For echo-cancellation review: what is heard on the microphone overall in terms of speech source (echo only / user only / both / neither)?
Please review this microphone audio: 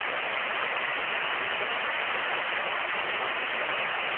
neither